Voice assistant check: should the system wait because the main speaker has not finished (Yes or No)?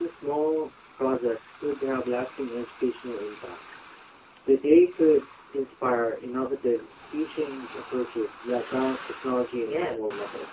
No